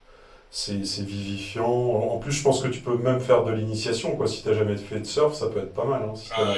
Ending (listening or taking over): taking over